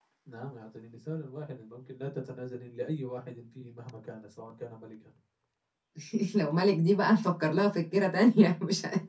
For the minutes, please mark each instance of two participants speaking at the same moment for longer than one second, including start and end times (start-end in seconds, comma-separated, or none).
none